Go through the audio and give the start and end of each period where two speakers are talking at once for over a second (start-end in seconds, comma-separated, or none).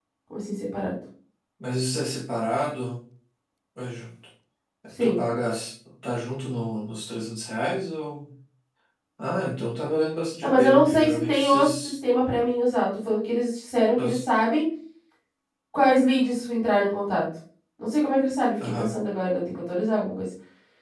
10.4-11.9